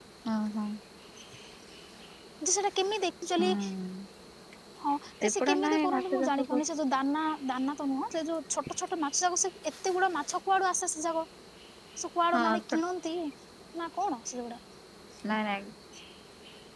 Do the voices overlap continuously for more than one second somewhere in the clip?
Yes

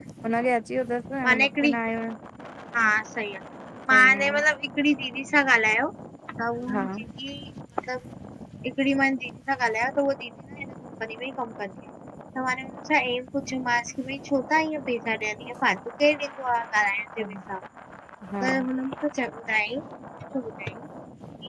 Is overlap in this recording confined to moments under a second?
Yes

